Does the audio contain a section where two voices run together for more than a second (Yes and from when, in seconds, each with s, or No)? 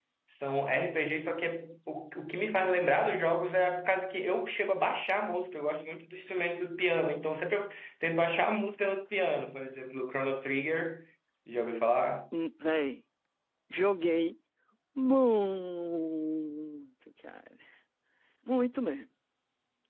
No